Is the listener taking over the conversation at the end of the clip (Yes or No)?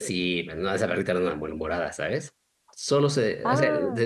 No